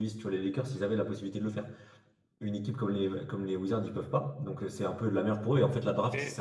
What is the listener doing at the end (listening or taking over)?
listening